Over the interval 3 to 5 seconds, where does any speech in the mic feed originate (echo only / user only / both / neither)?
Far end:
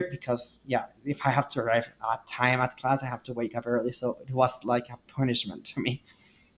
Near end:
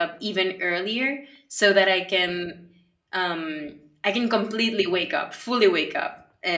user only